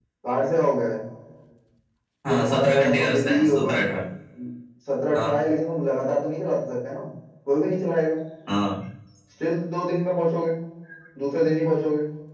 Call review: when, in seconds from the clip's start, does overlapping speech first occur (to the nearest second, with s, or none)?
2 s